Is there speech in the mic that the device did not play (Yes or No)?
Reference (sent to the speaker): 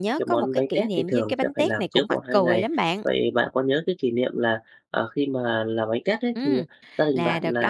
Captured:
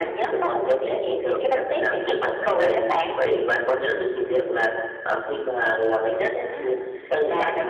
No